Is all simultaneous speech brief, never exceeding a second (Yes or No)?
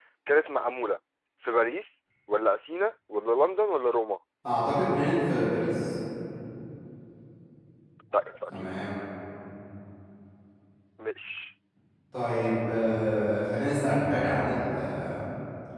Yes